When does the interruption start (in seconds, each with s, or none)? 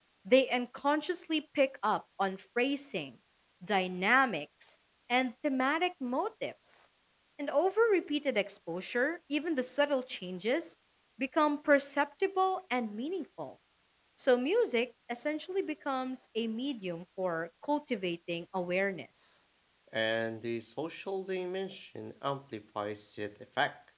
none